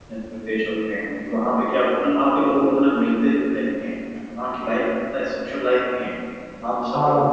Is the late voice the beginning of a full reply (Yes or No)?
No